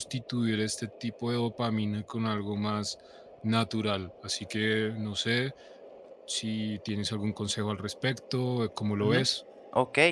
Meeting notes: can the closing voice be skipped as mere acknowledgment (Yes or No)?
No